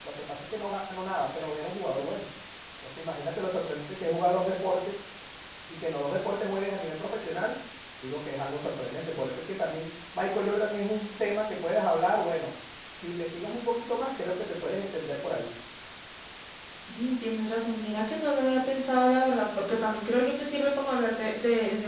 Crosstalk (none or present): none